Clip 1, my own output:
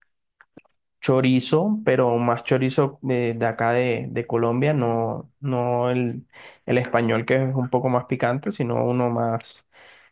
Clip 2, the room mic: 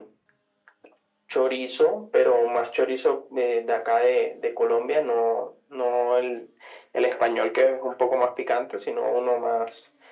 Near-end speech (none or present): none